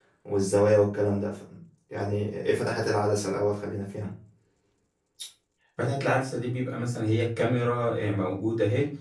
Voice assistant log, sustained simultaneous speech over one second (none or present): none